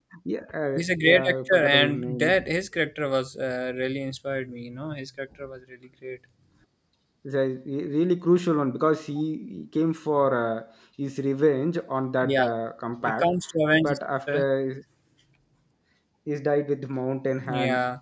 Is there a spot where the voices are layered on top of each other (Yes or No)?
Yes